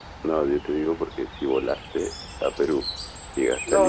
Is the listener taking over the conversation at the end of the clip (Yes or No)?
Yes